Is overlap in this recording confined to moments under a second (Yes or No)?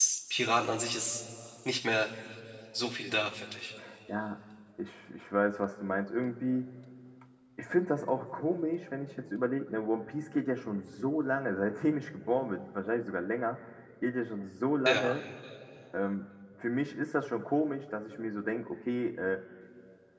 Yes